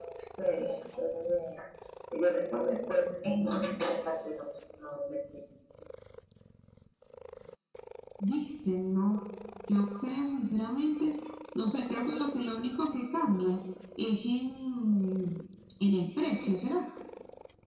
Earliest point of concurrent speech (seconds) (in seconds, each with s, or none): none